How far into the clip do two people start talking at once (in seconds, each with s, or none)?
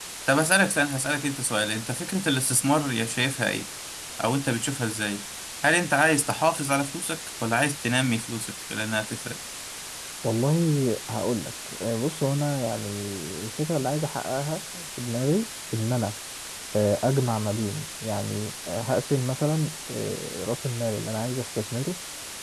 none